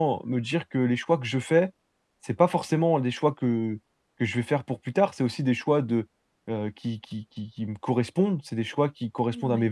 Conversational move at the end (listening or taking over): listening